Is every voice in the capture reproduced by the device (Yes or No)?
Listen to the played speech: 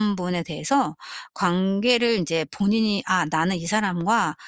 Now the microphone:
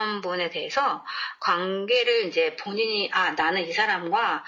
Yes